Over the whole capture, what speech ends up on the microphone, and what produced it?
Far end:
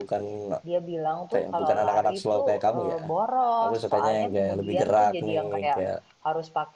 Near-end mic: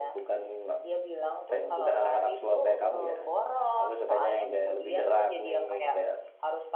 echo only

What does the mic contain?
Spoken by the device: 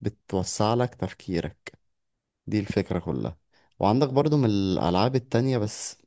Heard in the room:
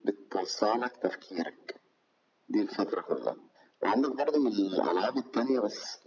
echo only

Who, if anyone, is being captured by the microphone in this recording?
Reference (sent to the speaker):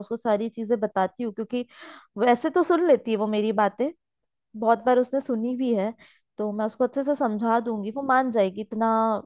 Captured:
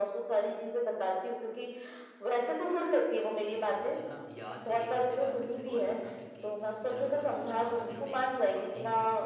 both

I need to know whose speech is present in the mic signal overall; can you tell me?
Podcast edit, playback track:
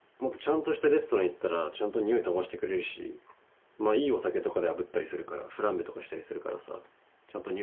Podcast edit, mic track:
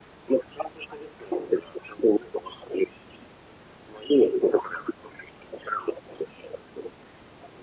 echo only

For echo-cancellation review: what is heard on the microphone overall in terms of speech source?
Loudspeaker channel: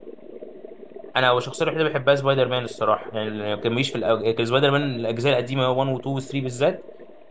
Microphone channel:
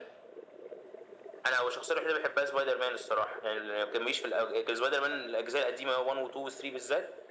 echo only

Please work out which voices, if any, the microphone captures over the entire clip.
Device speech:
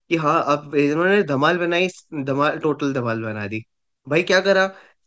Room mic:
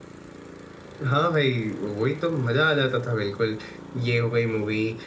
user only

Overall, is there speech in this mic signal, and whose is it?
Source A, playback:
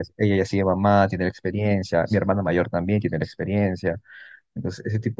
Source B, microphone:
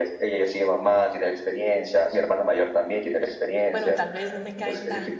both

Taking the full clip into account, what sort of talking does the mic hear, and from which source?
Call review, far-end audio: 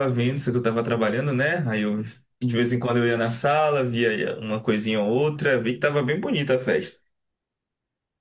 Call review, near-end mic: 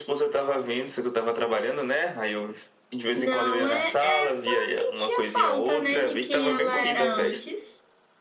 both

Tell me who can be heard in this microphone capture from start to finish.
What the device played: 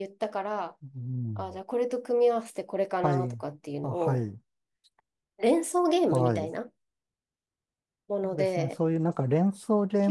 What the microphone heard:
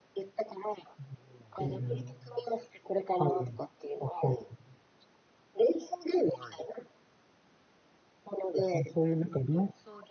both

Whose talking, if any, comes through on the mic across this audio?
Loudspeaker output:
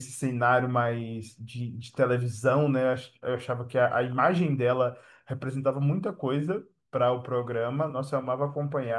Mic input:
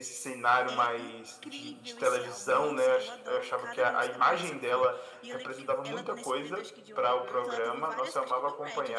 both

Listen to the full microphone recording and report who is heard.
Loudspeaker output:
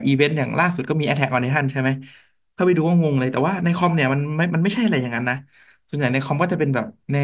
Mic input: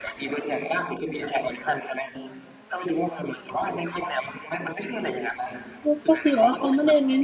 both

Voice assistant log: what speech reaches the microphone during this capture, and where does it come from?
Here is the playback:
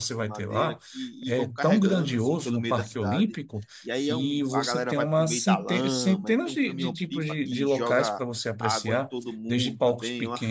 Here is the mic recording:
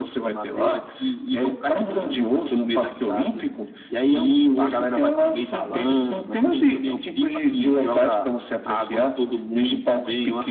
echo only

